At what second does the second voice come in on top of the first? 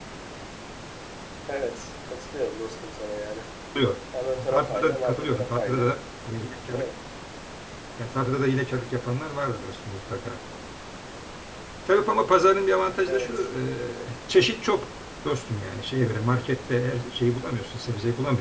4.5 s

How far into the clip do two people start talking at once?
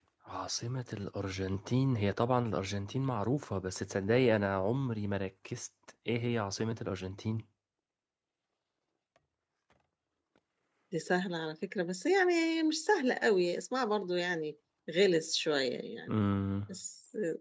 none

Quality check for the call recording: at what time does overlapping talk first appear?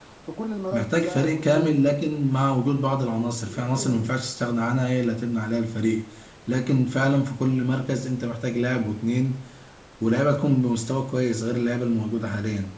0.7 s

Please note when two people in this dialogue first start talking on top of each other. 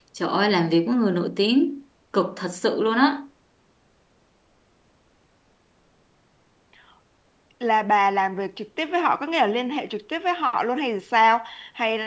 none

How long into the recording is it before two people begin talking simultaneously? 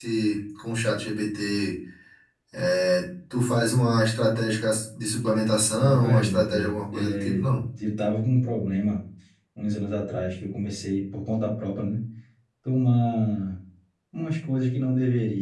5.8 s

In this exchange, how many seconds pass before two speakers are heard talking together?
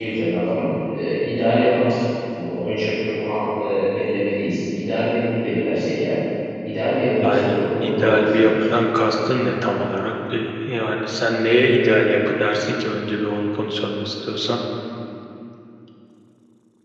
7.2 s

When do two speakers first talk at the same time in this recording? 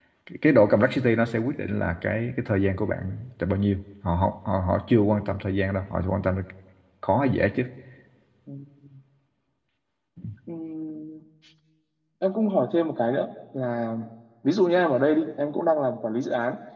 none

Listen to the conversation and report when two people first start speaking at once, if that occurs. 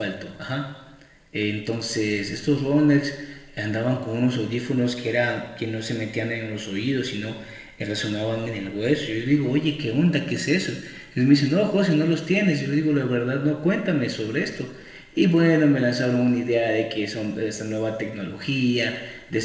none

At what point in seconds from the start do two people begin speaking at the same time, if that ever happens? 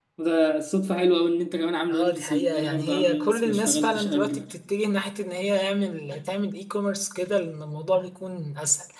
1.9 s

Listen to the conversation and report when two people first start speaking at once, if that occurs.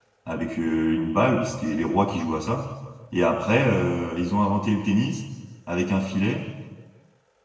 none

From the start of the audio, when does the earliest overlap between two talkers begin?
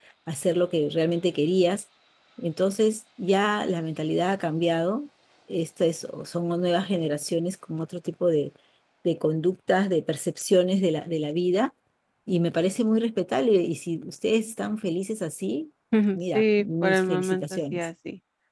16.3 s

